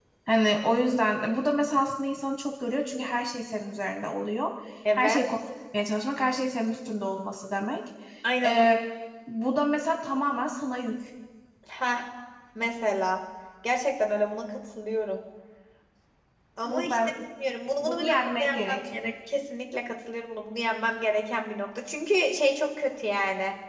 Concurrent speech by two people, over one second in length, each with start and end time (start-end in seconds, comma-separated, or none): 17.8-19.1